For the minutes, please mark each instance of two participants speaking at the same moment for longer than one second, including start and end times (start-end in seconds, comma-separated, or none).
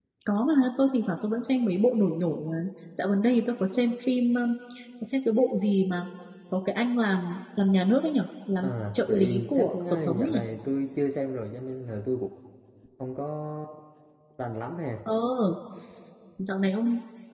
8.6-10.4